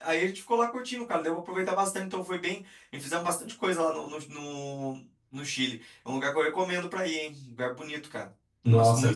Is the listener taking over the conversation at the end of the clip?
Yes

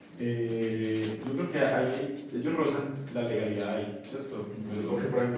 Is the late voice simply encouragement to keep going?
No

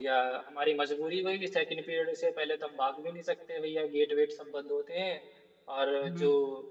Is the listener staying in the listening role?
Yes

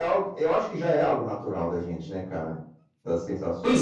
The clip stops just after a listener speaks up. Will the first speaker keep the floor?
No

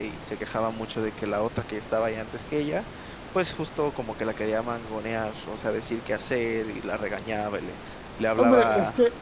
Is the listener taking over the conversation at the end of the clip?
Yes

